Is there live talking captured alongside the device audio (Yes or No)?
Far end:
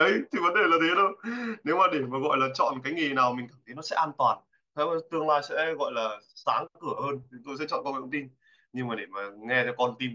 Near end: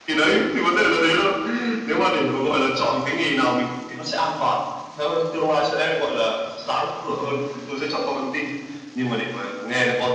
No